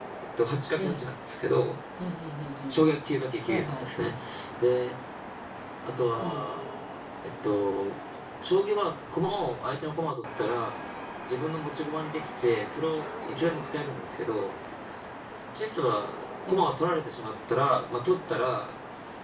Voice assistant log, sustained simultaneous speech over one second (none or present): none